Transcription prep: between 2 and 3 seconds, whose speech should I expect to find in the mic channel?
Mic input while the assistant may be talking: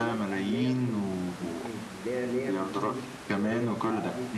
both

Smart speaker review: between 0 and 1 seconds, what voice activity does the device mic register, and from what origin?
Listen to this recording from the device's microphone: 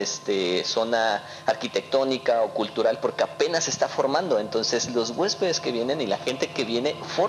echo only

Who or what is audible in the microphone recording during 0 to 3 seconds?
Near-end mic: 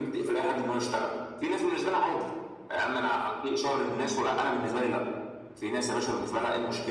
echo only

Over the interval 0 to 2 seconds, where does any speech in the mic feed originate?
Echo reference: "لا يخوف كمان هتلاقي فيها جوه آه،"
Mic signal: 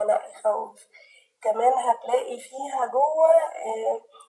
echo only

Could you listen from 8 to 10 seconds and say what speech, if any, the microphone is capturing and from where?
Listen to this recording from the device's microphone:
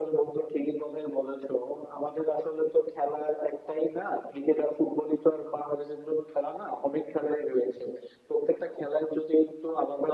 echo only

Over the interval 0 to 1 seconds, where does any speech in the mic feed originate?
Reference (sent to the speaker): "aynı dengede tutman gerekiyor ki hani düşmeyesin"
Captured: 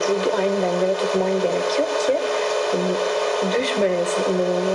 echo only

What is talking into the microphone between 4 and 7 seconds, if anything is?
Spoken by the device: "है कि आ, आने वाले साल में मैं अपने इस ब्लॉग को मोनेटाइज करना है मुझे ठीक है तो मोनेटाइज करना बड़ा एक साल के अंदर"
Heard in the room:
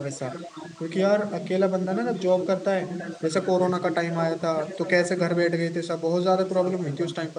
both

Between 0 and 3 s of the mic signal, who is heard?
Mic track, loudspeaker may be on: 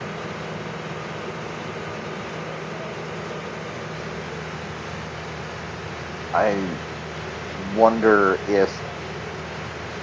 neither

